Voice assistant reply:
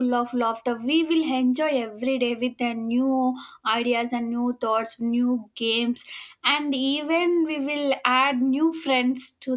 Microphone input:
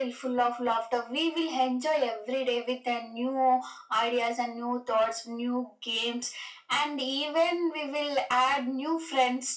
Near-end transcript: none

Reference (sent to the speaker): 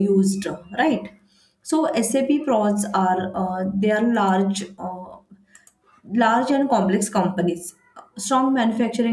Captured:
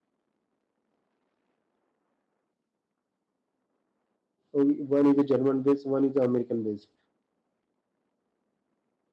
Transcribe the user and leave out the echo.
okay, one is a German based, one is American based.

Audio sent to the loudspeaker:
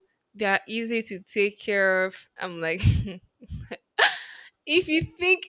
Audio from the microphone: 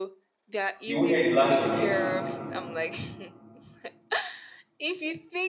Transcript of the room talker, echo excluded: You won't hear the last of it.

